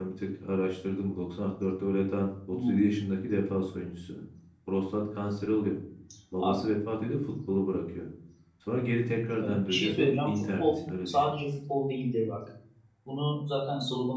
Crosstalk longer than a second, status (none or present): present